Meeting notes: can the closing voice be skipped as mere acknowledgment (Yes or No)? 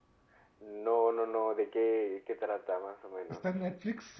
No